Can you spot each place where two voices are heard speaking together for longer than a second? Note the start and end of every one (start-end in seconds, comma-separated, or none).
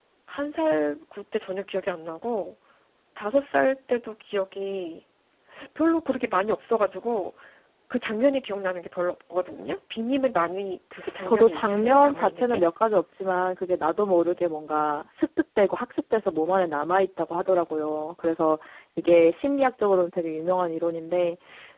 11.2-12.6